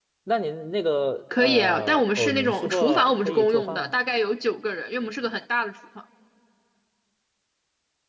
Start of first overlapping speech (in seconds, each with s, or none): 1.3 s